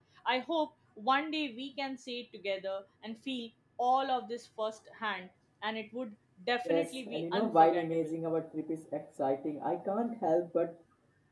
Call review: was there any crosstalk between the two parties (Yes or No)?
Yes